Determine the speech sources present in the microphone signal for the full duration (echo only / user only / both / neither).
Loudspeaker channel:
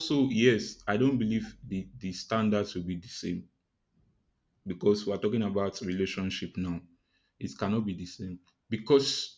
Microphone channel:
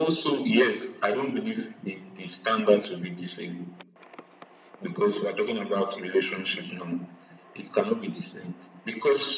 echo only